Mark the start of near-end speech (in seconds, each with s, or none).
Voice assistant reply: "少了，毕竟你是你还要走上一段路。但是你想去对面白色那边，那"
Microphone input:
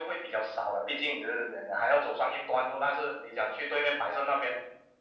none